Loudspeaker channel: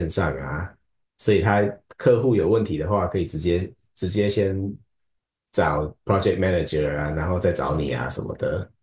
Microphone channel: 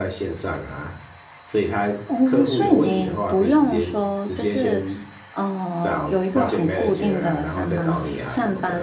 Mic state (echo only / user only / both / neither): both